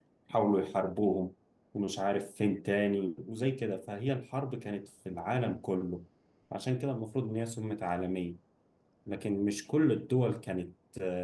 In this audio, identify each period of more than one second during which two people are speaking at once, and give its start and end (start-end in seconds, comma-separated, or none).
none